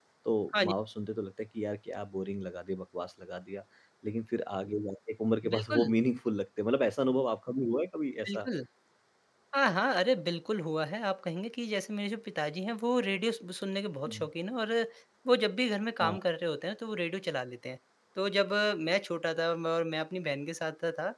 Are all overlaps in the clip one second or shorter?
Yes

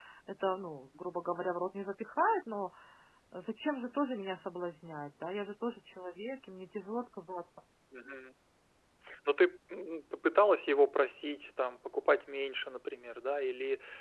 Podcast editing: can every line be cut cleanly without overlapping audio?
Yes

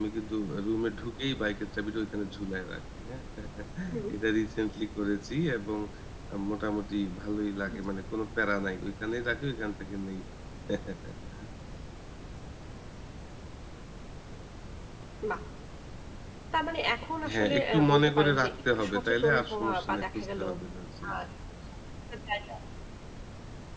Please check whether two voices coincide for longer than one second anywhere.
Yes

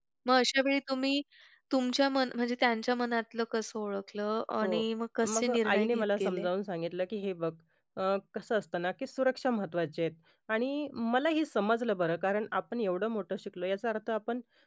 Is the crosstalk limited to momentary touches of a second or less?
No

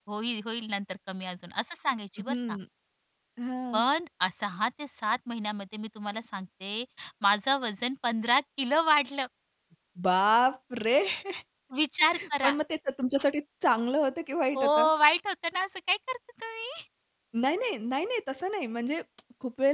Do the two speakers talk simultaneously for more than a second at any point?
No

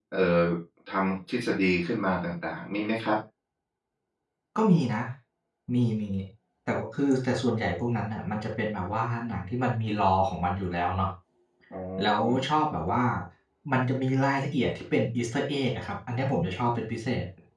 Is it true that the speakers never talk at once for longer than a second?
Yes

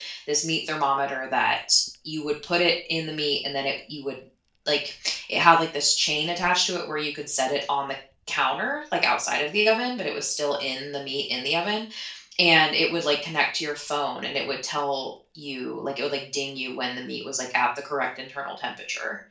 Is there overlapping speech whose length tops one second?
No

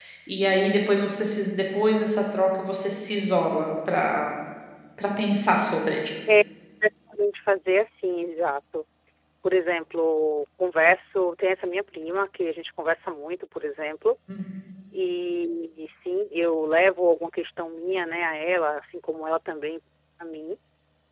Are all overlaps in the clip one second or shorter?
Yes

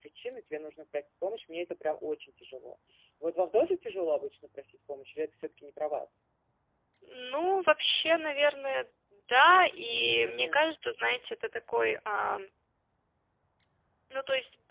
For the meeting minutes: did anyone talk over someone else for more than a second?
No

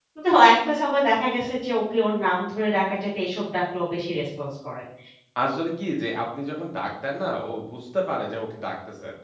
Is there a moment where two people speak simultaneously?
No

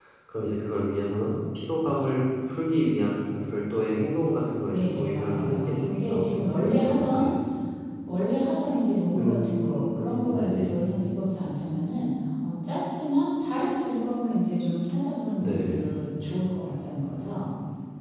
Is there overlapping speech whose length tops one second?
Yes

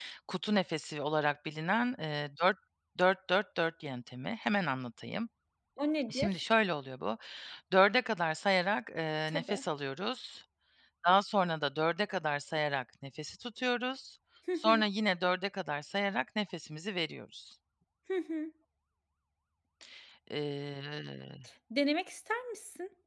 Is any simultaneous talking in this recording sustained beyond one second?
No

